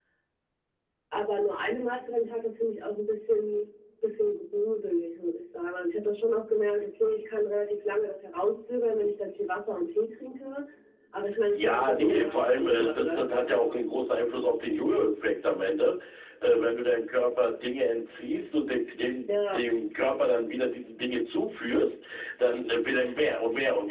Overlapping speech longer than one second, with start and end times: 11.5-13.2

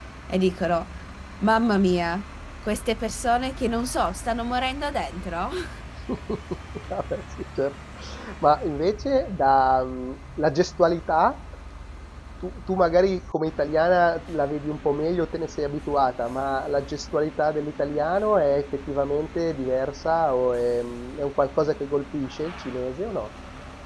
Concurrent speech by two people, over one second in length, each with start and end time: none

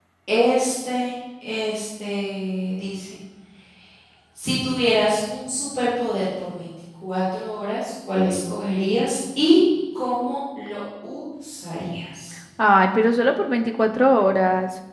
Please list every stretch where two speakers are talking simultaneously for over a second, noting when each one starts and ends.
none

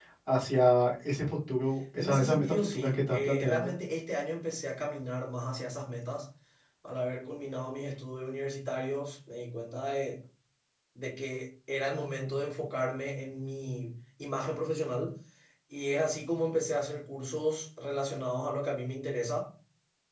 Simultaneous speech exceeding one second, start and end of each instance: 2.0-3.7

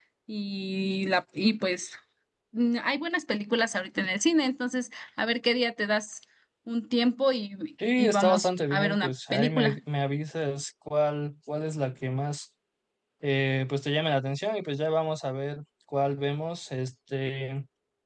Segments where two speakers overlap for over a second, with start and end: 8.0-9.8

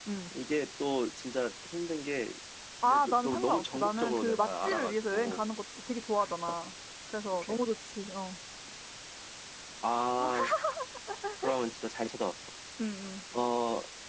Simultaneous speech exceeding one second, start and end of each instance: 2.9-5.4

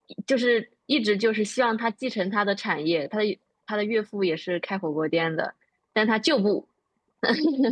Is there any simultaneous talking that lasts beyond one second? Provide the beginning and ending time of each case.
none

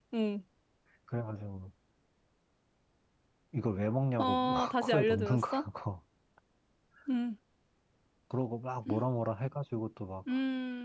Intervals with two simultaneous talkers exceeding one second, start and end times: 4.2-5.7

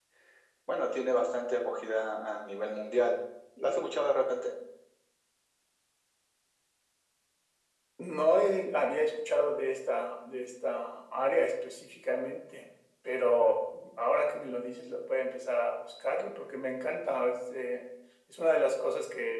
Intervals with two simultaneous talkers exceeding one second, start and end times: none

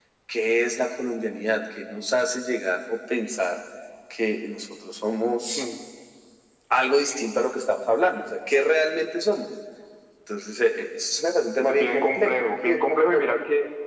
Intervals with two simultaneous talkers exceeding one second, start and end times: 11.7-13.2

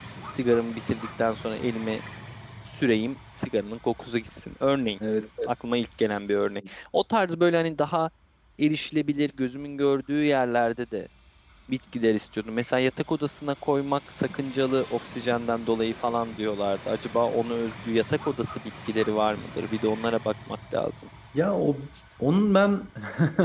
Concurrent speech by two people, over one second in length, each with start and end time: none

